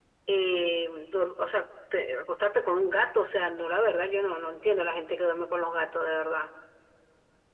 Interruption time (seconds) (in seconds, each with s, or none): none